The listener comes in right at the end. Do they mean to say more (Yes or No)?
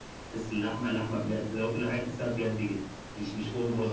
No